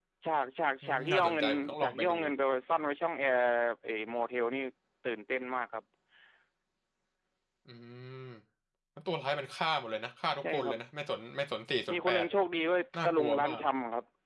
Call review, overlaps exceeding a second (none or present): present